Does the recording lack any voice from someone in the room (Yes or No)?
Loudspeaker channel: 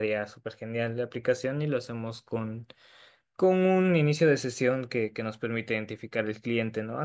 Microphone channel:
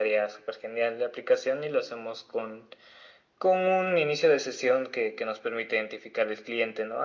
Yes